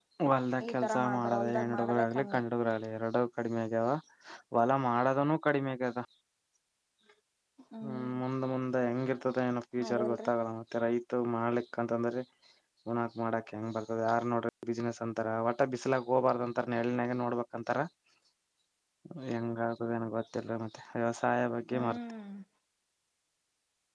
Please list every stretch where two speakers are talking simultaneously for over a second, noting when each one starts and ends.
0.7-2.4

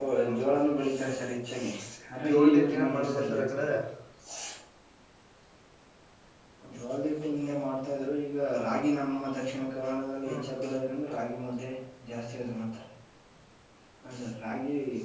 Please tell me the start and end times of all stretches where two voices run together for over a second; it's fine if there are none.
2.3-3.6

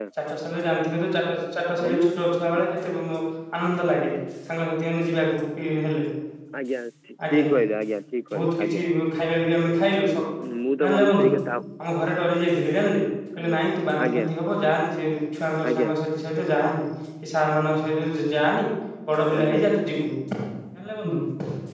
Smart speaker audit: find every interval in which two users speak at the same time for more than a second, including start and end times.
none

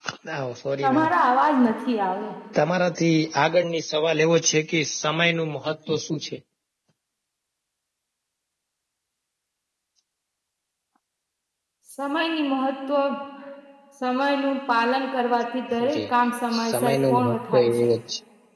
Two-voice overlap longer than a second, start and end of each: 16.6-17.9

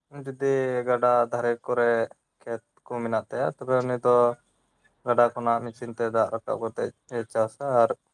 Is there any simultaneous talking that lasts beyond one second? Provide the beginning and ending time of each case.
none

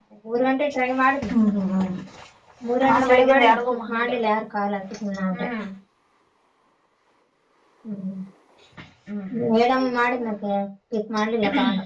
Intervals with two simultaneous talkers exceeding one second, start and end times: 2.9-4.1

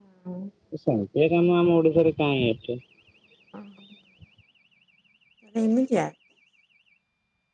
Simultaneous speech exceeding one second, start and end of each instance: none

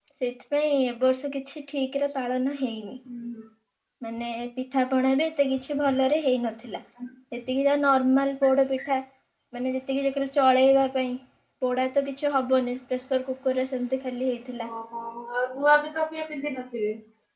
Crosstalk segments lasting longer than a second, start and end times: none

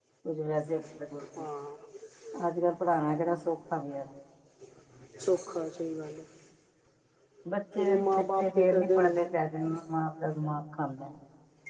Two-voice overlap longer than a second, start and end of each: 7.8-9.2

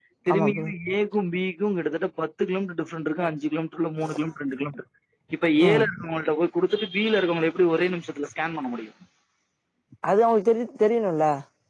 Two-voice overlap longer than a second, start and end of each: none

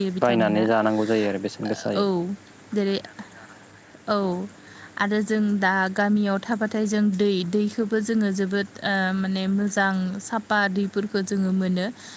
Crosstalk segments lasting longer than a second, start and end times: none

